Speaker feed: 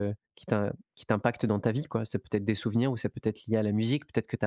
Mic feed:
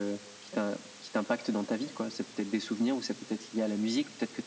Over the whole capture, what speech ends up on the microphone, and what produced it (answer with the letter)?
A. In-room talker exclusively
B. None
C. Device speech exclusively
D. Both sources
C